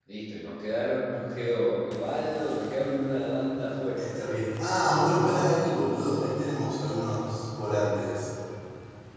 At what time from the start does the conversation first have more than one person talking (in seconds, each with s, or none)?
none